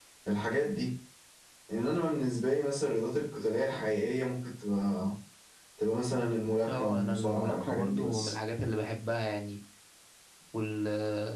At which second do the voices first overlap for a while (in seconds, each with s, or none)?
6.7 s